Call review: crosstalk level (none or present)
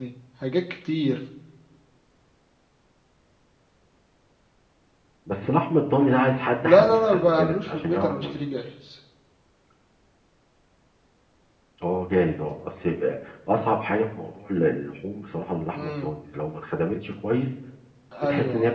present